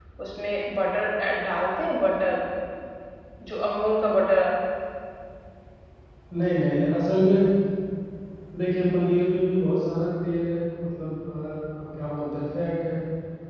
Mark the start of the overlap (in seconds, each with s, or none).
none